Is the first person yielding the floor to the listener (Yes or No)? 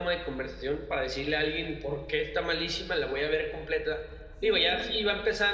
No